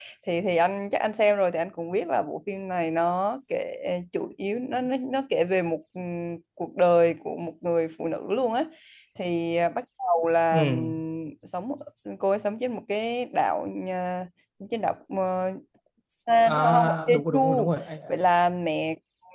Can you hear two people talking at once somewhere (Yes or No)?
Yes